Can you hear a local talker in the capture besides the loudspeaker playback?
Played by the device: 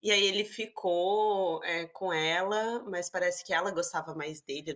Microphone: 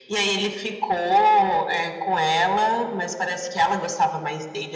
No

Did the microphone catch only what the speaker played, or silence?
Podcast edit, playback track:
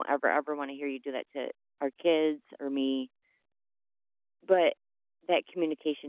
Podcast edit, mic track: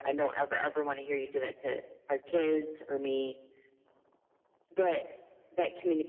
Yes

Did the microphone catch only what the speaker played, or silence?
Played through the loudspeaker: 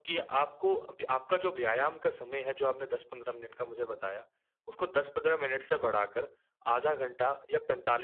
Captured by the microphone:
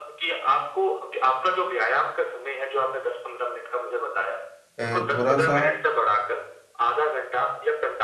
No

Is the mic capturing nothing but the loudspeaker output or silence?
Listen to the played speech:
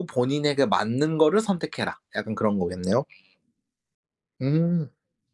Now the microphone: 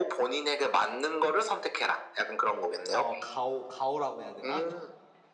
No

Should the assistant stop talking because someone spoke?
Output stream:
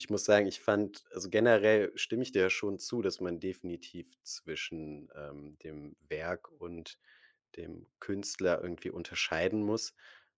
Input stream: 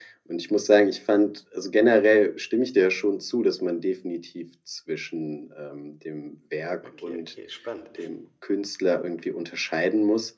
Yes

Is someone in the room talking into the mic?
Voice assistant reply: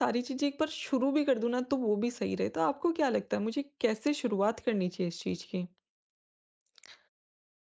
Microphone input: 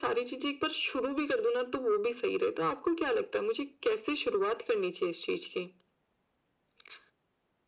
No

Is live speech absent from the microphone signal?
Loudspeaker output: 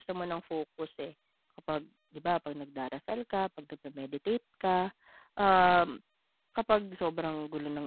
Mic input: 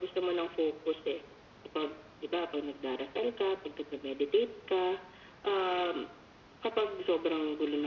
Yes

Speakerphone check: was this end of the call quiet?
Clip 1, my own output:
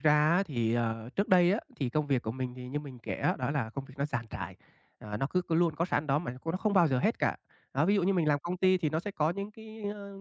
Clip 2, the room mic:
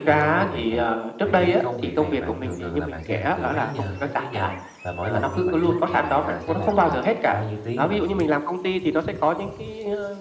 No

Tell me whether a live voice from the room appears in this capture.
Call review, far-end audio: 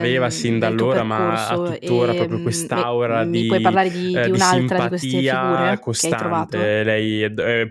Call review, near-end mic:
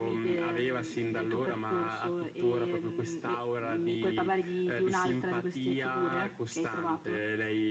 No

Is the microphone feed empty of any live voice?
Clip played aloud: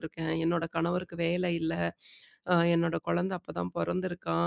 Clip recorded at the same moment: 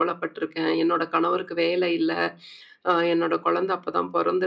Yes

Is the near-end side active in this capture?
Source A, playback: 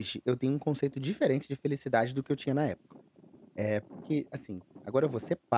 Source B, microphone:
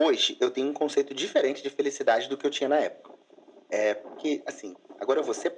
No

